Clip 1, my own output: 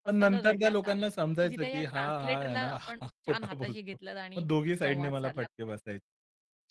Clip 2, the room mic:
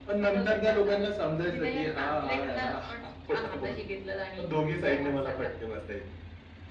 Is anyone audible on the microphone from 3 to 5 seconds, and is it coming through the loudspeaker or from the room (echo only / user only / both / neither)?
echo only